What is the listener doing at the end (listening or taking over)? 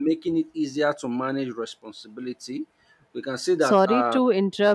taking over